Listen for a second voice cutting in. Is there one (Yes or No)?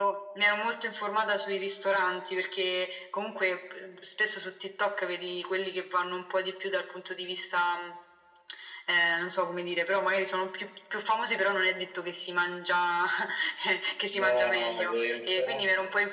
Yes